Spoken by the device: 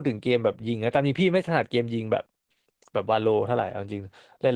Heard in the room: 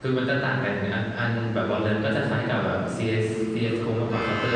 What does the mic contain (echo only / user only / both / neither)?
user only